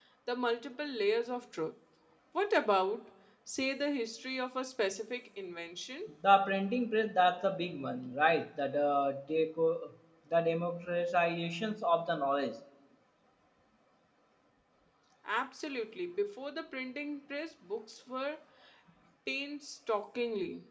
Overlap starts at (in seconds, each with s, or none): none